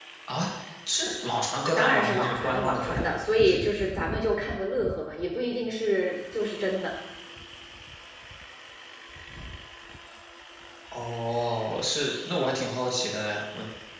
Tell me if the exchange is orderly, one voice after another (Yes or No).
No